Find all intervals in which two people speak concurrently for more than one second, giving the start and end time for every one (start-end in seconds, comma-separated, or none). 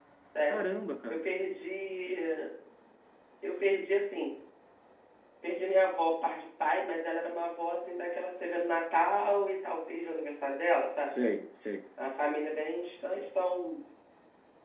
none